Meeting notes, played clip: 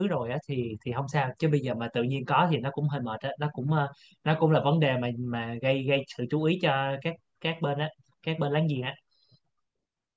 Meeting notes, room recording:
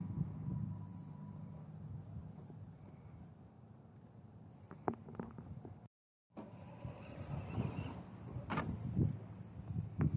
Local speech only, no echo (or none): none